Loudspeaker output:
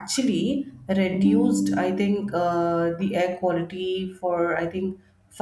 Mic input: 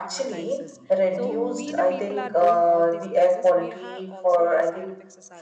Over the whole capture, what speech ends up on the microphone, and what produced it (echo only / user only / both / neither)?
both